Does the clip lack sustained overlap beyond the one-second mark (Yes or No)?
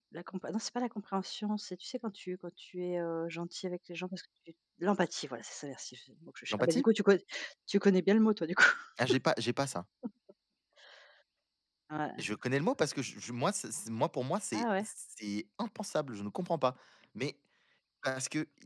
Yes